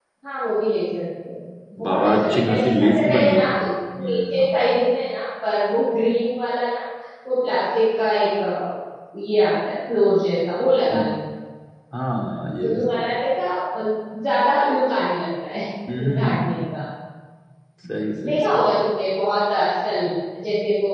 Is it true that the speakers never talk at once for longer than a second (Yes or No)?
No